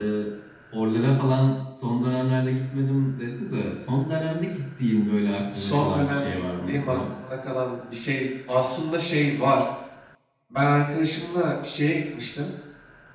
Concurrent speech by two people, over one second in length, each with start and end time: 5.5-7.0

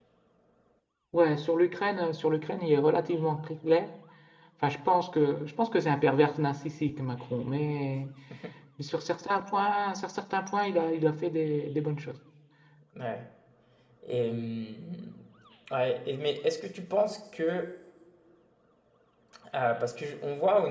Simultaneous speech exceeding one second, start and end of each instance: none

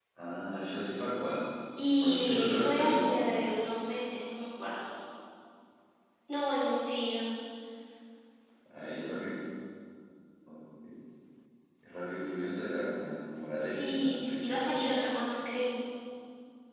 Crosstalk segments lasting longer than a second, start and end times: 2.0-3.2, 13.6-14.8

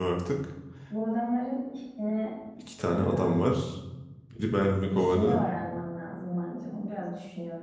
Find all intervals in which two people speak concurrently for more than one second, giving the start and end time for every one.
none

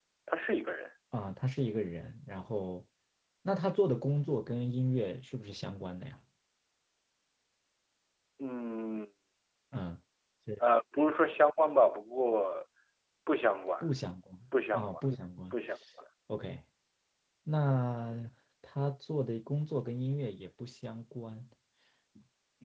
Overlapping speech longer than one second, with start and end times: none

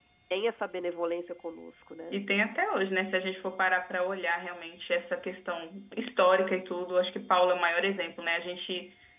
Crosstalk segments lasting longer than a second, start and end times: none

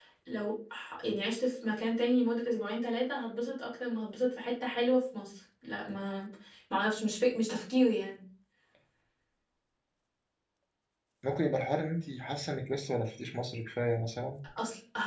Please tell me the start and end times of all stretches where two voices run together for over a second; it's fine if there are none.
none

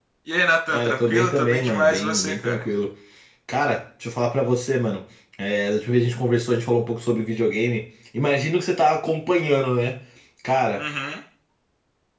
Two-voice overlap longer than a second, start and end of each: 0.7-2.6

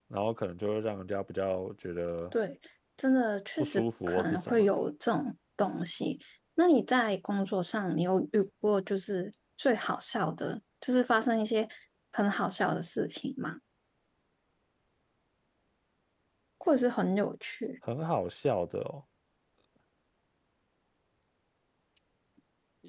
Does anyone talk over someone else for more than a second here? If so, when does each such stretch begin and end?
3.6-4.9

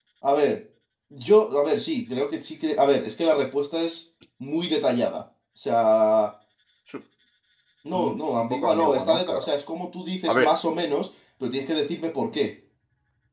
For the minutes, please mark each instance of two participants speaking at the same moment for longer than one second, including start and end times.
7.9-9.5

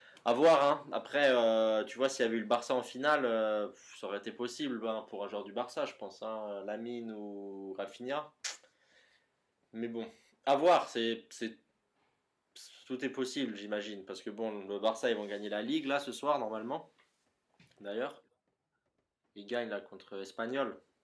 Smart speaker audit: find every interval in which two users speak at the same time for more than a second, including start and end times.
none

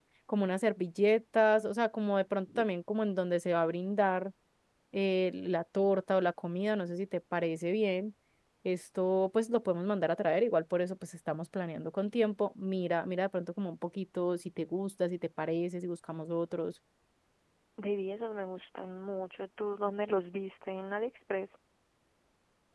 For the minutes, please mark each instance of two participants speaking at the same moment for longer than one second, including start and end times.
none

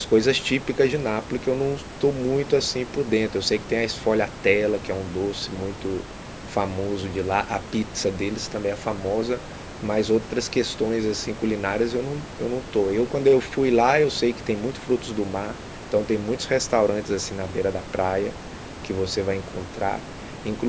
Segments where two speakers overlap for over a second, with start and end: none

